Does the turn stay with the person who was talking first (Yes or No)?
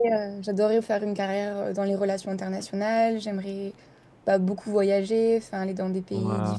Yes